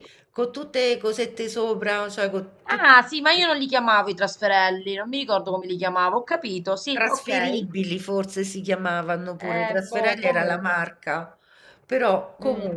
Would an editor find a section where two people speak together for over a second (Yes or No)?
Yes